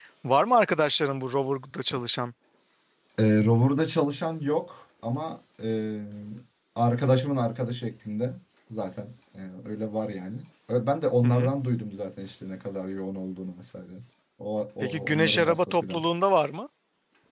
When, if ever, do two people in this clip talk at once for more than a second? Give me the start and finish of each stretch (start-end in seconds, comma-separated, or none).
14.8-16.0